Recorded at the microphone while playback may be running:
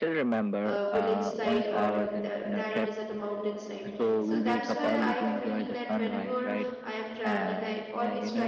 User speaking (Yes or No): Yes